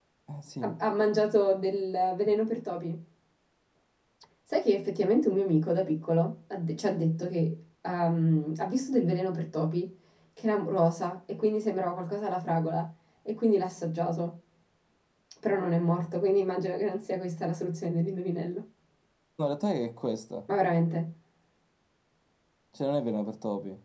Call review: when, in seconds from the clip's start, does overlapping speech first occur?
none

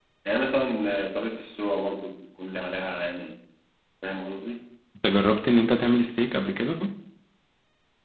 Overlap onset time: none

